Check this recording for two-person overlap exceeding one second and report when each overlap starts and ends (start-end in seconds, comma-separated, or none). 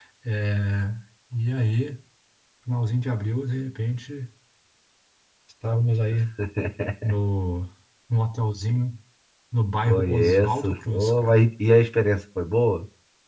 9.8-11.4